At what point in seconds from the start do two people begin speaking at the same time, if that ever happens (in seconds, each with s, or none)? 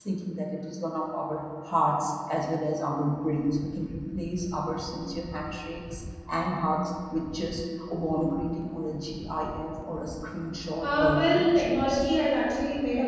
10.8 s